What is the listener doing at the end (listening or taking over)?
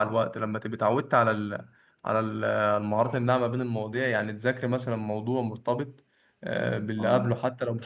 listening